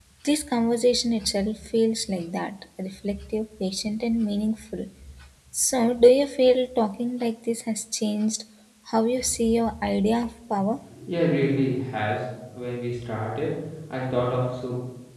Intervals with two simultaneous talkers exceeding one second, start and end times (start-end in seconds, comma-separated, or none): none